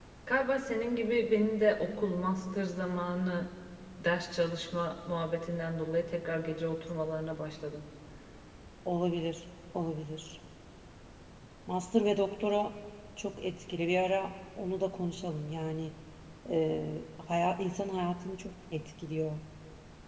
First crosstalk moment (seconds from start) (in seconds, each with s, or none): none